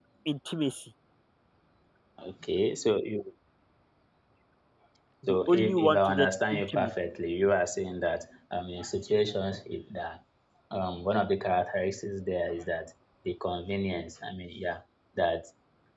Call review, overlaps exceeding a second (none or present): present